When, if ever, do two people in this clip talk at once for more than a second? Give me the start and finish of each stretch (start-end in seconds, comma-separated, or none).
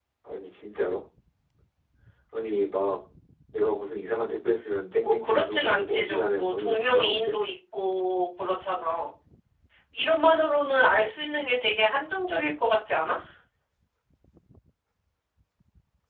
5.0-7.4